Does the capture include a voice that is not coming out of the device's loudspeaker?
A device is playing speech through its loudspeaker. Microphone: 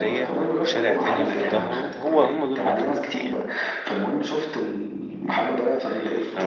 Yes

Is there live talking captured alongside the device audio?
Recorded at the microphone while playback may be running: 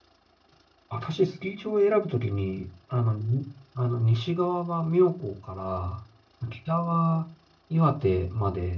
Yes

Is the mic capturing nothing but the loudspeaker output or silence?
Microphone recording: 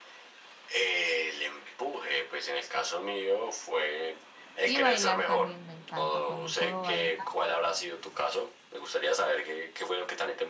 No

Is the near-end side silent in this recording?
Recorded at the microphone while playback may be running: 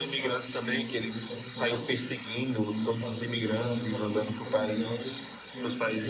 No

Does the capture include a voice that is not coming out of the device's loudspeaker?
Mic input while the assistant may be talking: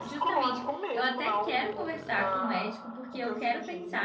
Yes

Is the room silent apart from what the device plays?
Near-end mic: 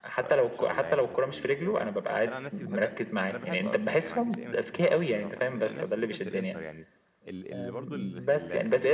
No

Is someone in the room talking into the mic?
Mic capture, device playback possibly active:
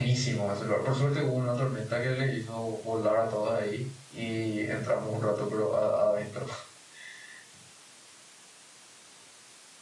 Yes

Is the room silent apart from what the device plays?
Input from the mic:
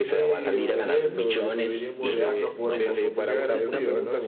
No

